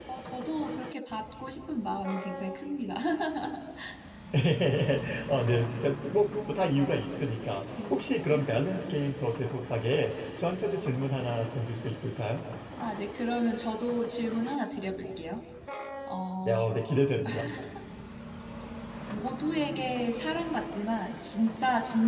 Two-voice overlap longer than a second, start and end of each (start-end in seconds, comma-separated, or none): none